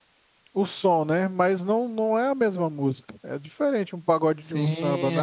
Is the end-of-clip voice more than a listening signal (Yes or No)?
Yes